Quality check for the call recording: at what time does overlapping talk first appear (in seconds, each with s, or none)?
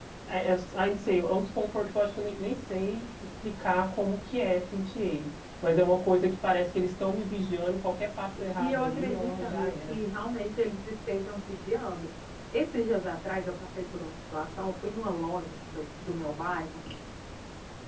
8.4 s